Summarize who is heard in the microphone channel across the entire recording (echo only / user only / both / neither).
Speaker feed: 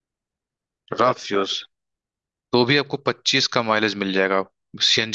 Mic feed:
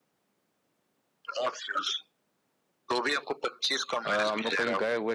both